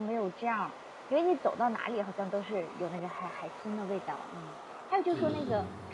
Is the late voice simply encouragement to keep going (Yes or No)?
Yes